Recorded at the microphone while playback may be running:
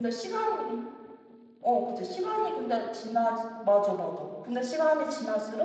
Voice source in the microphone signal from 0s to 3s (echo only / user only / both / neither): user only